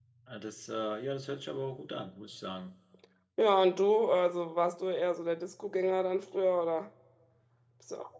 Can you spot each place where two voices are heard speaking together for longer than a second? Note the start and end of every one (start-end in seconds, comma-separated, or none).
none